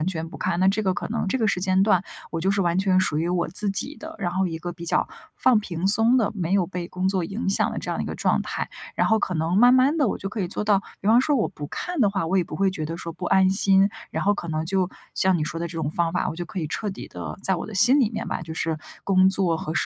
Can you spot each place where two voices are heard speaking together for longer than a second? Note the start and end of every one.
none

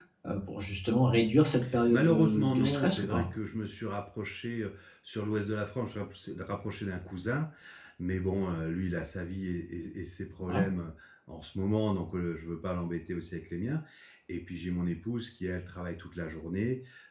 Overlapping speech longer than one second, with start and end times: 1.9-3.2

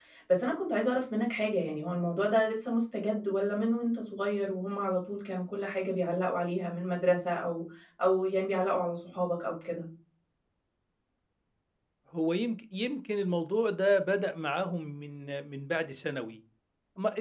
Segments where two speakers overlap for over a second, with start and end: none

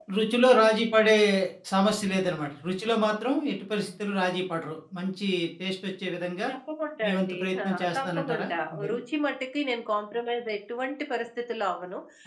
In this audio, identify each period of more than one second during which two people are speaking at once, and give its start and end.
7.0-8.4

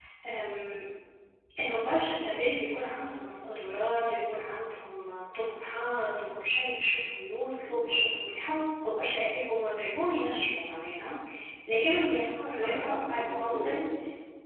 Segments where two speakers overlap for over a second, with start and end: 12.6-13.8

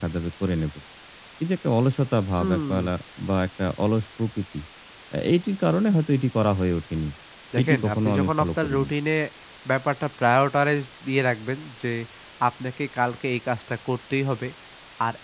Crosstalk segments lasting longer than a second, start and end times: 7.6-8.9

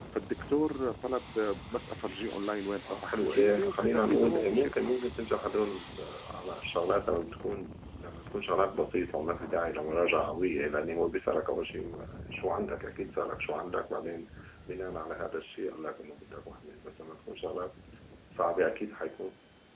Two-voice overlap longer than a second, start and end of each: 2.9-4.7

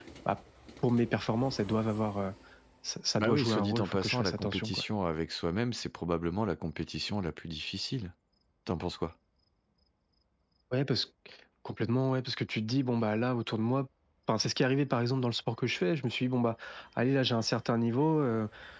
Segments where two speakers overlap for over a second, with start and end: 3.2-4.8

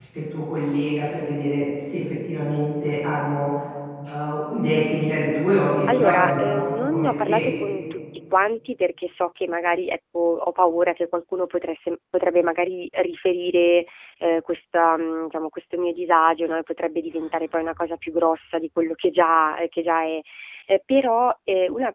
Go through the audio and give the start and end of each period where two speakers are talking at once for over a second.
5.9-7.4

